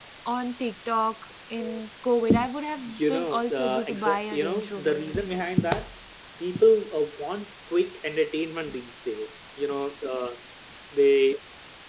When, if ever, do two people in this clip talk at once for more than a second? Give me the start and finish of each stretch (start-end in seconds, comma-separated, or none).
2.9-5.4